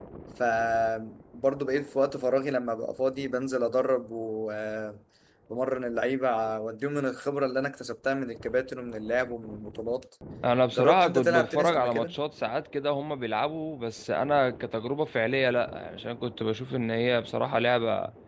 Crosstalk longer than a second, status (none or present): present